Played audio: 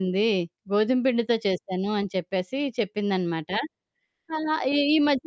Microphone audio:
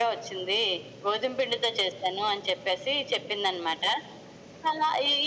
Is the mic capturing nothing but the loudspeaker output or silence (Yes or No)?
Yes